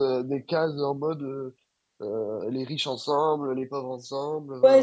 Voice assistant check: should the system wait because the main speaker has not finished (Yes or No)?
No